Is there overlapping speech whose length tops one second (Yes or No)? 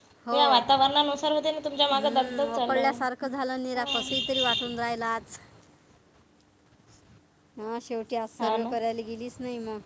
Yes